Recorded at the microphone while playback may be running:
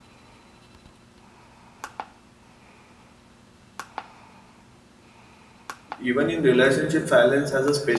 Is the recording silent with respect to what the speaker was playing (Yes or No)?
Yes